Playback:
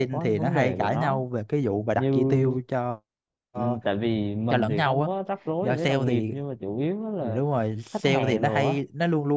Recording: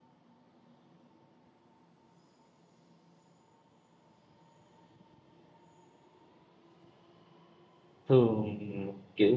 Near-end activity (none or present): present